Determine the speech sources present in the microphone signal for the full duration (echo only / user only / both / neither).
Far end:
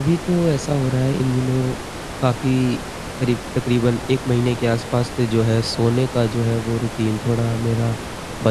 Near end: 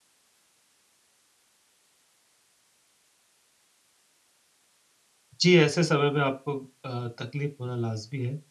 user only